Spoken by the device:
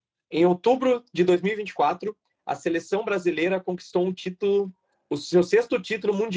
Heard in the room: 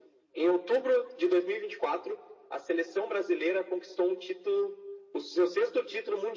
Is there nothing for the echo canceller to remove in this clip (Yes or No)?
No